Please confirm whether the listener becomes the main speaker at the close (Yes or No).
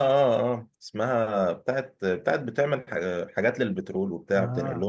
Yes